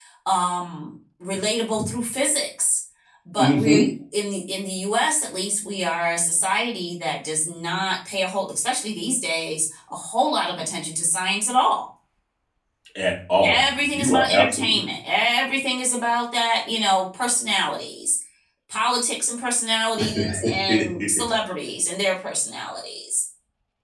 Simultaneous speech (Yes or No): Yes